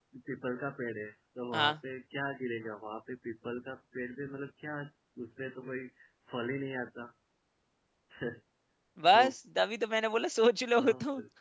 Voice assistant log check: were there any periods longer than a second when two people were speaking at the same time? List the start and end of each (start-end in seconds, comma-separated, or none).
none